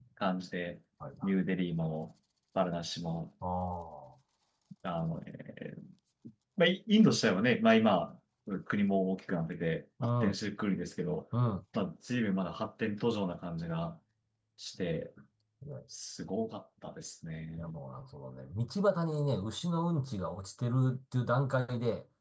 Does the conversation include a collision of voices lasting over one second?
No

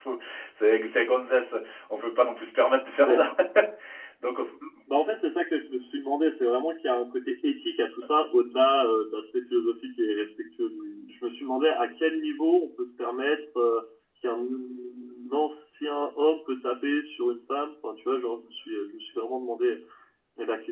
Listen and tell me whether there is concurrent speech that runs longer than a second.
No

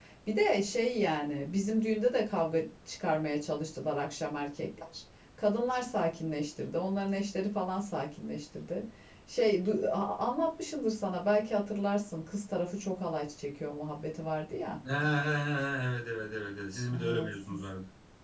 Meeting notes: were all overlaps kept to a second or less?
Yes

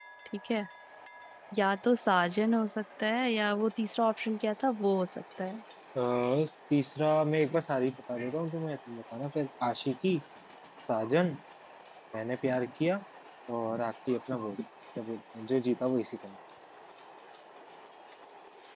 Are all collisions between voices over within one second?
Yes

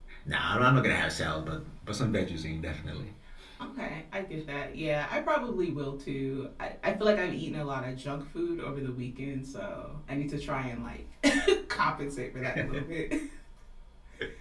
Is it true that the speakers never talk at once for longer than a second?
Yes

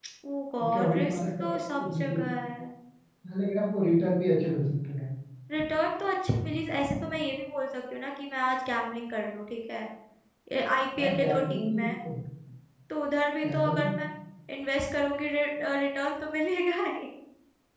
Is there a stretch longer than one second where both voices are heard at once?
Yes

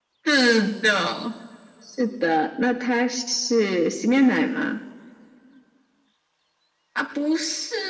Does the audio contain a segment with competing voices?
No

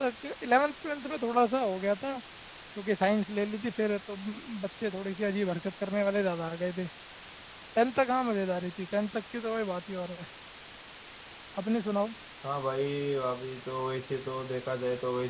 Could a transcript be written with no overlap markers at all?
Yes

